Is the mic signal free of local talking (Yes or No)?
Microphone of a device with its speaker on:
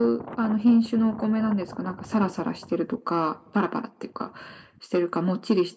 Yes